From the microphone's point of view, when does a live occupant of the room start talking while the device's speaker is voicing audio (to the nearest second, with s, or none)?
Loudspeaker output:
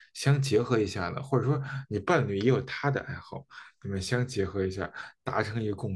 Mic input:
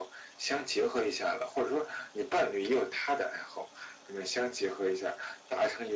none